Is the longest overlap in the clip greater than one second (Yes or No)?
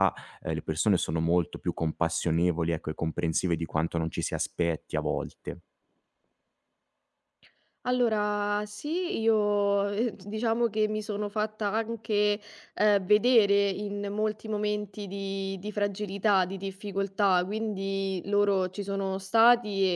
No